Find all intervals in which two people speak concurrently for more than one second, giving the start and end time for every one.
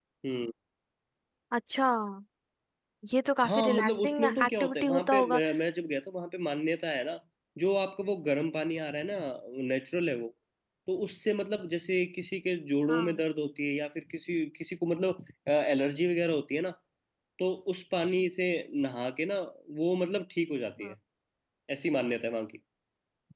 3.5-5.4

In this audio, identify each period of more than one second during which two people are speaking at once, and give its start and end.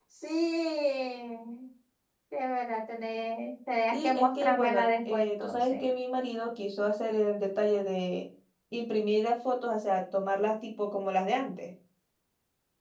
3.9-5.8

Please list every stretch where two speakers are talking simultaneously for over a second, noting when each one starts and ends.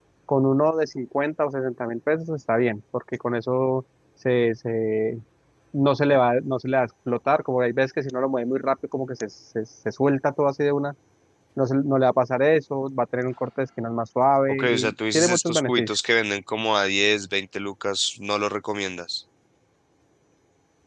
14.5-15.9

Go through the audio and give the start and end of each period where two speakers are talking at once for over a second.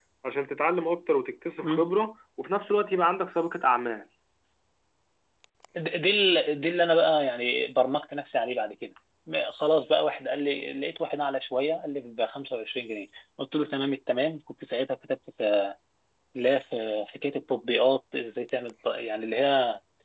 none

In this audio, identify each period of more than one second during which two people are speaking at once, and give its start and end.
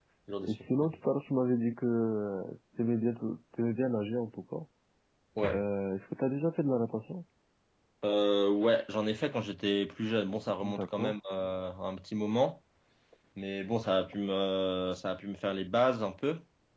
none

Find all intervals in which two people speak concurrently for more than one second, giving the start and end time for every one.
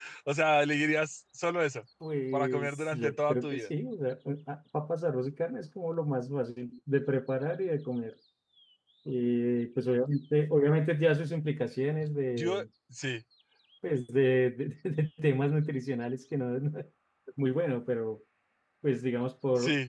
2.3-3.6

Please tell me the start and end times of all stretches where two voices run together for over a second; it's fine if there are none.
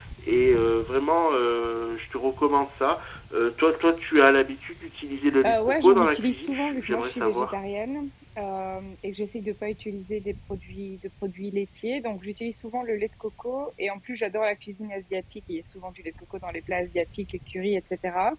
5.5-7.5

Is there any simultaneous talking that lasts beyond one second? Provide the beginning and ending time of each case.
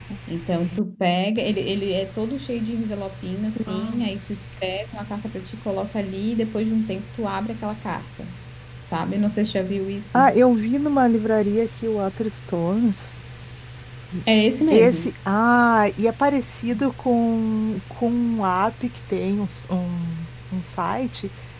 none

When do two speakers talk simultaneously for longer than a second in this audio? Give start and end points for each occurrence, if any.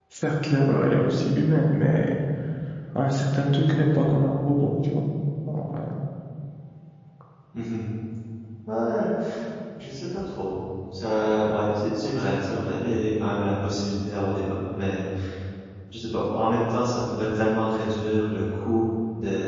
none

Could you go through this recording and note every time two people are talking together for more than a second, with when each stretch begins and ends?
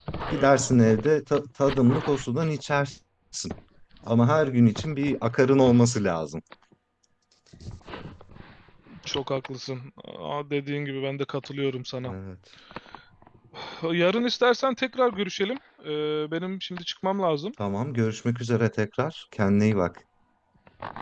none

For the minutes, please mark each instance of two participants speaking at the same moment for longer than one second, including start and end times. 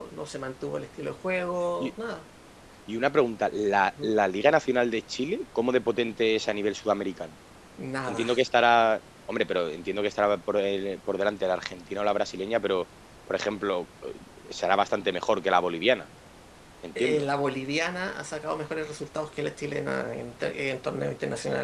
none

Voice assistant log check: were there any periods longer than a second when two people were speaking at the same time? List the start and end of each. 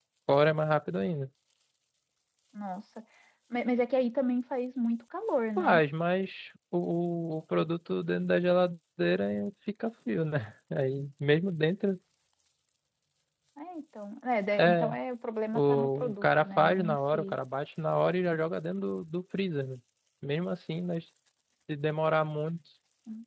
15.5-17.4

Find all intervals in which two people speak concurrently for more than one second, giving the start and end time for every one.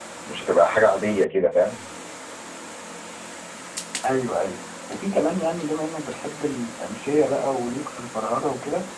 none

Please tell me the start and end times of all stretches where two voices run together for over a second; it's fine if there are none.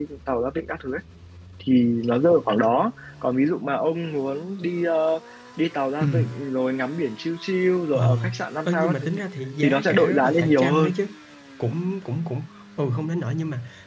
9.6-10.9

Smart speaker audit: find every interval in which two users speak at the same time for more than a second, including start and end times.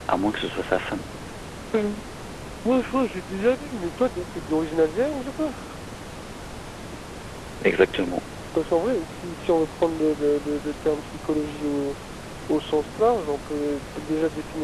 none

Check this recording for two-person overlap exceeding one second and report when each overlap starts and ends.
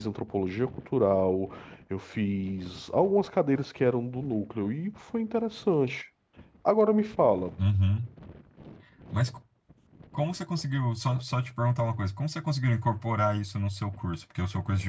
none

